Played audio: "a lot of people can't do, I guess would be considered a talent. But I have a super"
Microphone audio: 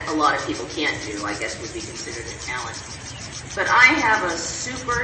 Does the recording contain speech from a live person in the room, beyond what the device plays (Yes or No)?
No